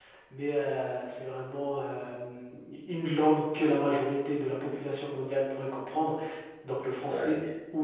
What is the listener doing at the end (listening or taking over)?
listening